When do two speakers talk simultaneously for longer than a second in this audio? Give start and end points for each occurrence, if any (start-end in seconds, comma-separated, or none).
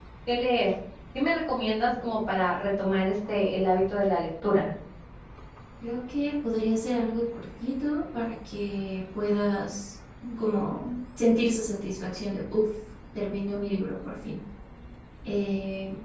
none